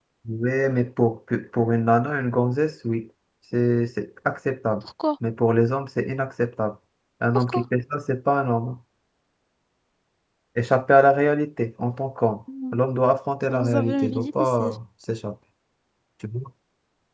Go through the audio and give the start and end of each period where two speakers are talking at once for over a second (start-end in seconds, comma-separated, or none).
13.5-14.7